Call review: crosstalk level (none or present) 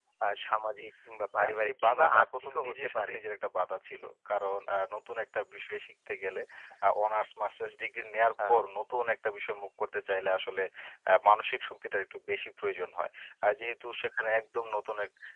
present